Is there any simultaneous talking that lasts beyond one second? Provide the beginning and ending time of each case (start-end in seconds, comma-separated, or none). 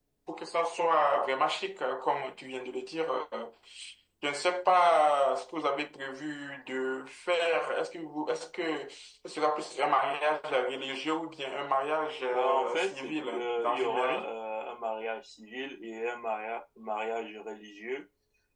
12.3-14.3